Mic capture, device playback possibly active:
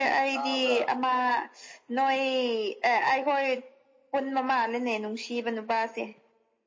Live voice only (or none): ꯇꯥꯕ꯭ꯔꯥ